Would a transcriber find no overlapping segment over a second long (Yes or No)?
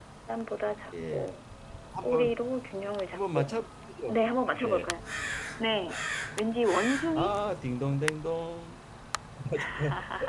Yes